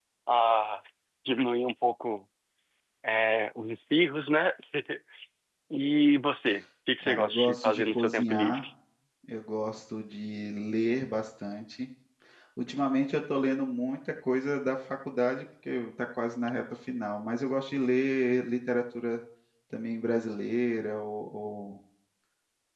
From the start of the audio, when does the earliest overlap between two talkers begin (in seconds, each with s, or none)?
7.0 s